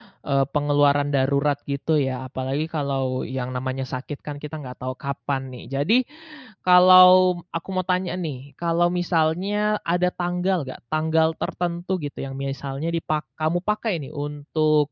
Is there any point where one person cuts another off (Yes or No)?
No